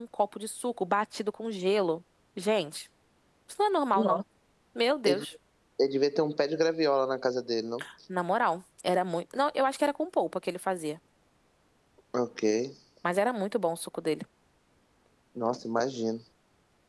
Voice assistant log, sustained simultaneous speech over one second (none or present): none